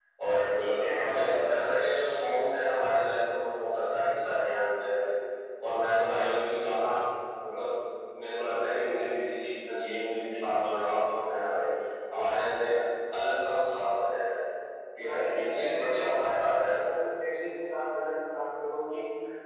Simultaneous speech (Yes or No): Yes